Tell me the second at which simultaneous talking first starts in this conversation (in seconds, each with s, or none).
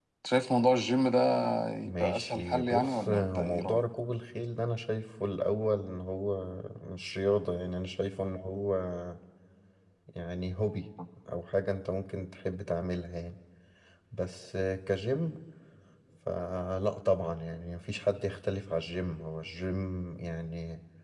1.9 s